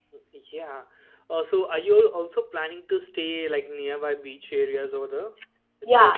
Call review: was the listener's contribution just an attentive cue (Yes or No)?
No